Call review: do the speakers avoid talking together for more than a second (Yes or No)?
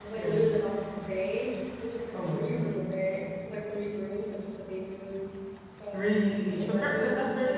No